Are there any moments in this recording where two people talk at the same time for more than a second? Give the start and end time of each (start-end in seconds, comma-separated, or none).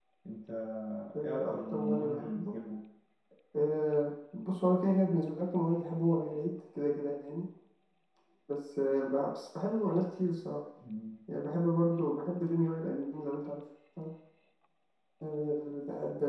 1.2-2.6